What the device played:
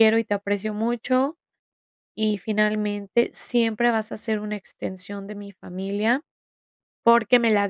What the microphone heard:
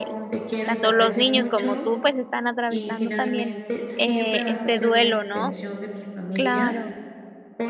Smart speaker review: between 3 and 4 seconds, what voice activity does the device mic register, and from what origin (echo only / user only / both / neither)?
both